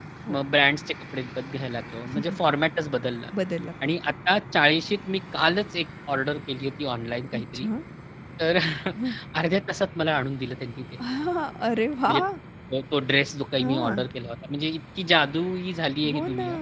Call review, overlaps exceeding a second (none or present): none